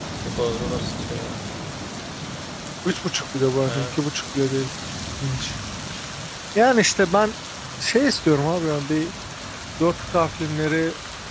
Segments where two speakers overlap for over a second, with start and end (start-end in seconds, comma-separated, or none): none